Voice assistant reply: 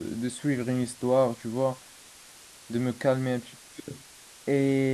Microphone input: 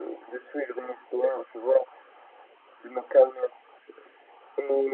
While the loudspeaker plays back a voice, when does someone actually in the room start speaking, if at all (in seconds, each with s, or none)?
none